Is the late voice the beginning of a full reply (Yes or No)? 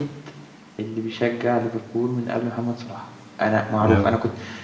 No